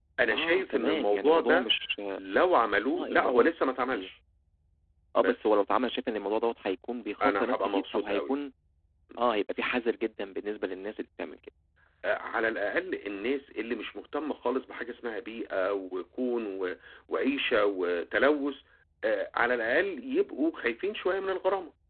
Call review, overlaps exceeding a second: present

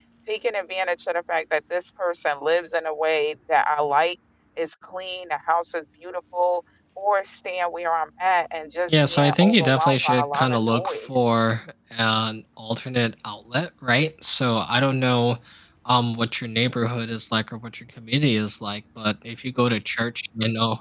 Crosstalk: present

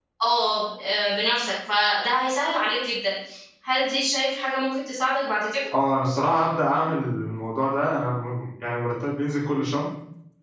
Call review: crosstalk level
none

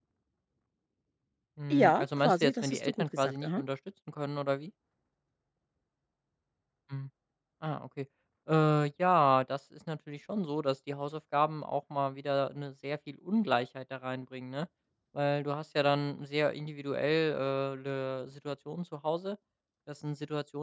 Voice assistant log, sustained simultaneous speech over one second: present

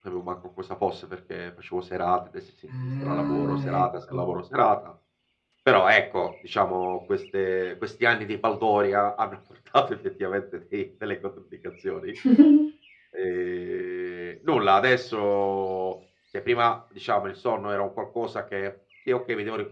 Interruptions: present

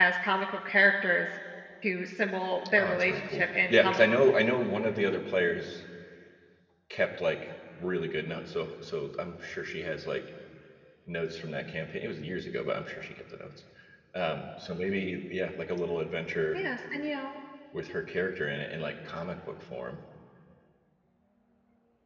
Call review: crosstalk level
present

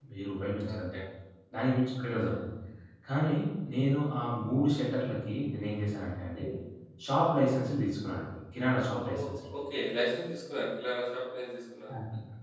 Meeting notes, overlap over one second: none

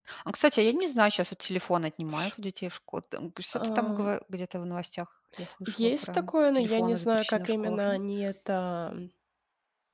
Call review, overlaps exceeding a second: present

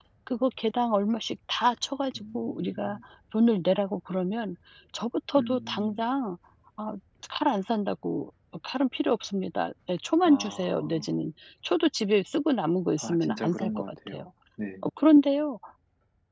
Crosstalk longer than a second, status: present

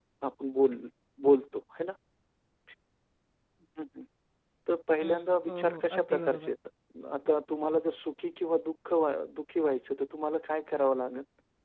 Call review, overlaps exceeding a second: present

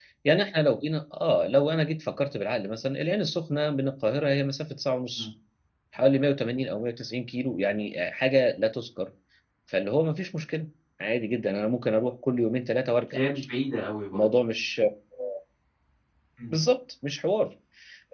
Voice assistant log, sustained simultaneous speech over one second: none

